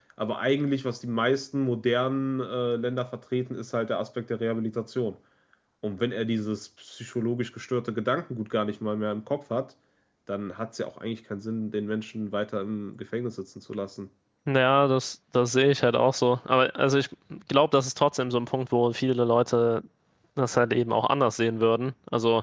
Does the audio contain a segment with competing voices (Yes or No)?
No